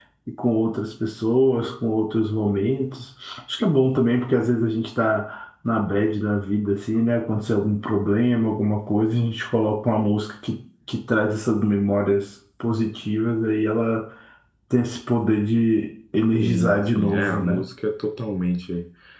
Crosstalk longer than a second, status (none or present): present